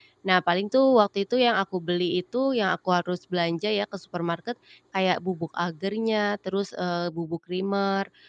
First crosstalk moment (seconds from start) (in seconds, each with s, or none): none